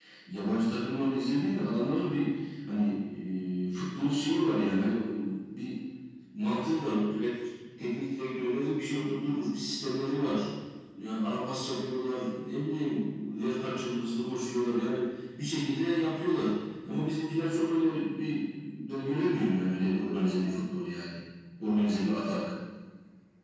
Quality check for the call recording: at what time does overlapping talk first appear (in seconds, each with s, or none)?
none